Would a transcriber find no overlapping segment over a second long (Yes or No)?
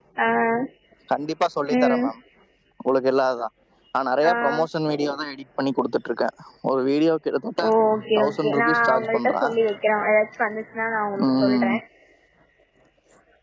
No